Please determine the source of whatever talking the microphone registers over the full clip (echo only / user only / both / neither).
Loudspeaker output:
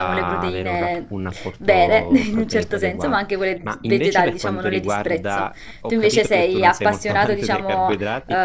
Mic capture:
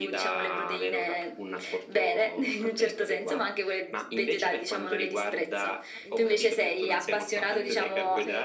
both